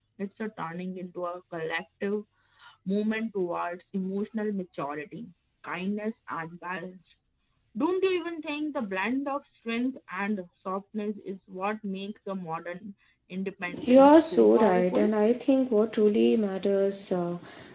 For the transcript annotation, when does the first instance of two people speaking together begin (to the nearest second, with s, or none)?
14 s